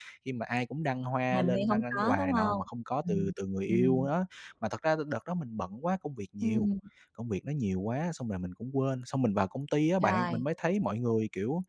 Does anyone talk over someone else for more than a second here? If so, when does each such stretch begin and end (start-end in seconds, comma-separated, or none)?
1.3-2.6